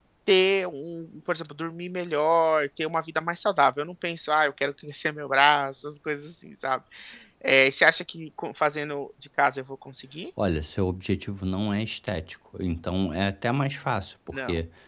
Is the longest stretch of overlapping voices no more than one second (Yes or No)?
Yes